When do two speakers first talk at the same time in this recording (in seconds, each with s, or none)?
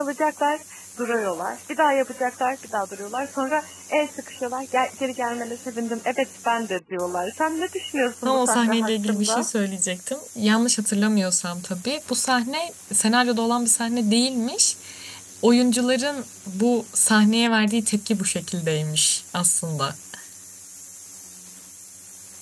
8.2 s